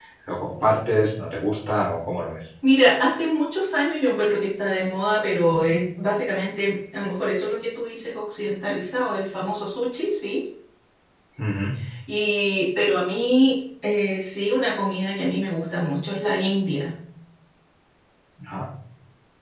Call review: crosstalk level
none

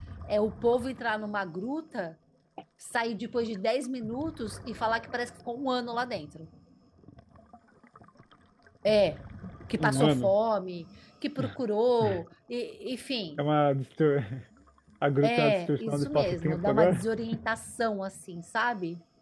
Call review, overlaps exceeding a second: present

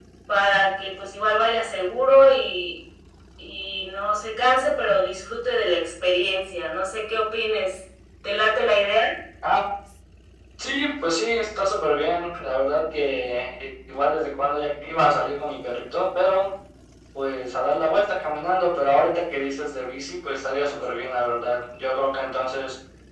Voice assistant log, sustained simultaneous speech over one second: none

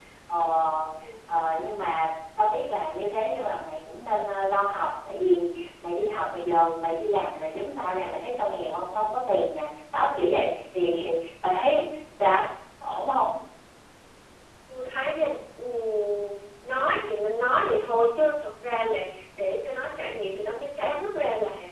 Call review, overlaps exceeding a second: none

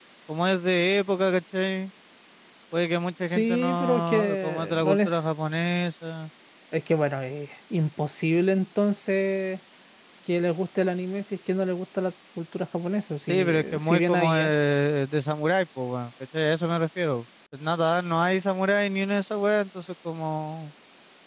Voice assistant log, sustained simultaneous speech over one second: present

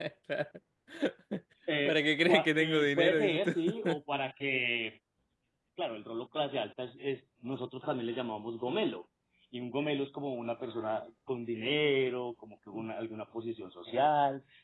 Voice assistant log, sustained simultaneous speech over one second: present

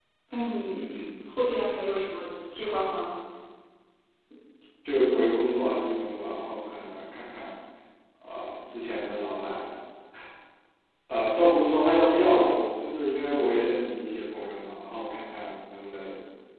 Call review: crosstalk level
none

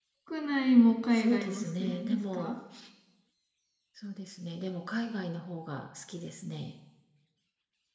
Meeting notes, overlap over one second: present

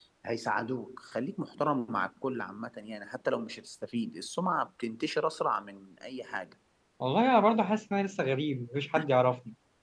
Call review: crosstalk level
none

